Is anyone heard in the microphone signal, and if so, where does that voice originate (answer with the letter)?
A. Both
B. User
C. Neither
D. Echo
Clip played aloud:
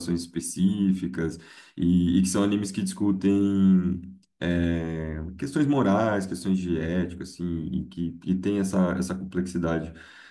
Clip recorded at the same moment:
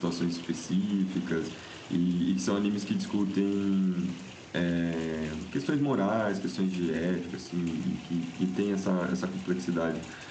D